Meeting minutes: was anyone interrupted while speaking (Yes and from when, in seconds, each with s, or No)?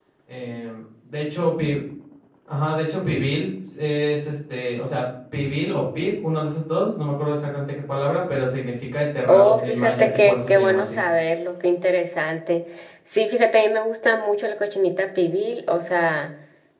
Yes, from 9.2 s